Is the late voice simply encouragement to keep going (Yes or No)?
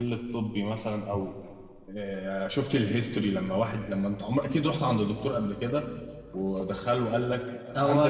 No